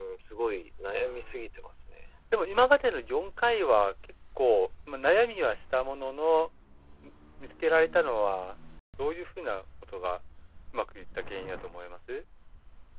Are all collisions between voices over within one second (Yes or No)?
Yes